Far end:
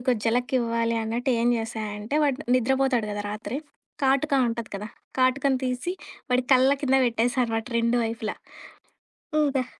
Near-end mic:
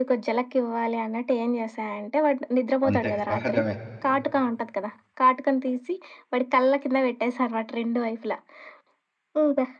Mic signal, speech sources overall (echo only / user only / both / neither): both